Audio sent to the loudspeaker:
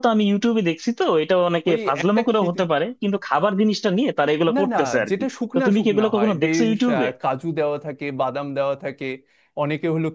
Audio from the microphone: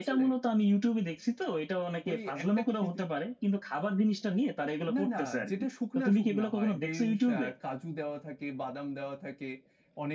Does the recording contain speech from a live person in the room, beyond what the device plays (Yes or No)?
No